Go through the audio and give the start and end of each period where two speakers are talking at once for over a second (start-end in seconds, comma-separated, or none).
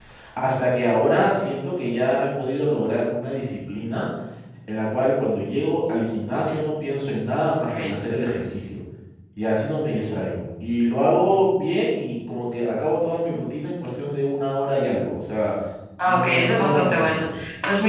16.0-17.4